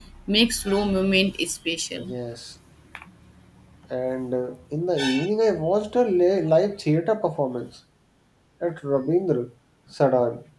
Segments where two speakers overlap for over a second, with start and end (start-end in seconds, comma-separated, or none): none